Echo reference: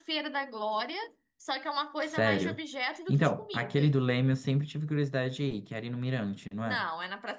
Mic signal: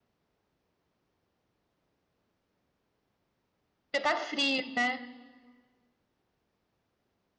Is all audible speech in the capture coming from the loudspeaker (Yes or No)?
No